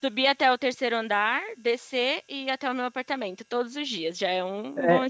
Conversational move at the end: taking over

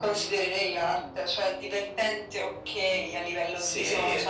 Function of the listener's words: taking over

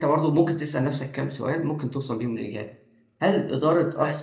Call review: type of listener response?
listening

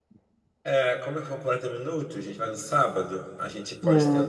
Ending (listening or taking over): listening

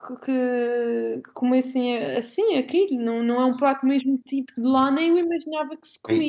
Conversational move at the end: taking over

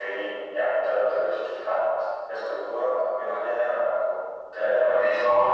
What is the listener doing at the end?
listening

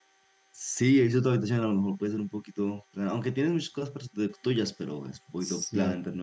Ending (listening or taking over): taking over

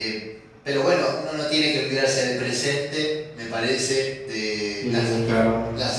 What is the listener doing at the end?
listening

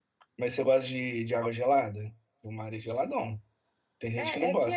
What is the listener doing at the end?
taking over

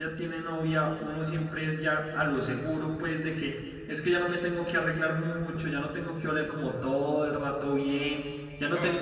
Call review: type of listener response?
listening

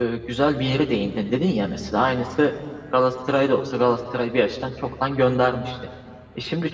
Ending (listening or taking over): listening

